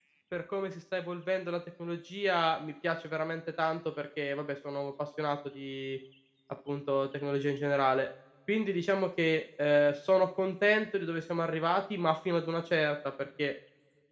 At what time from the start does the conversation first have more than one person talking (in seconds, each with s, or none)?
none